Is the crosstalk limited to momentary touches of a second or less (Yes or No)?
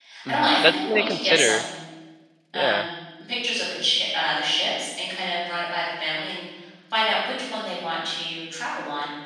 No